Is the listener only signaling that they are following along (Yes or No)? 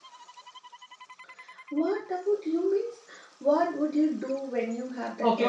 No